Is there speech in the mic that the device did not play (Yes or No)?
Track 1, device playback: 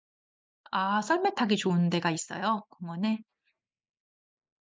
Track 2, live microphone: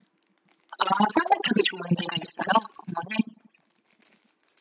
No